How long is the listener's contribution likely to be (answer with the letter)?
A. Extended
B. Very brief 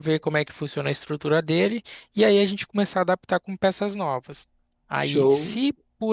B